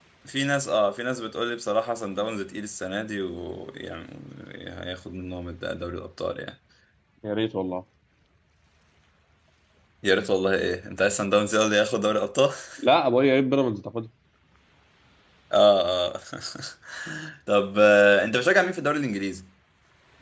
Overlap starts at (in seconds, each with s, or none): none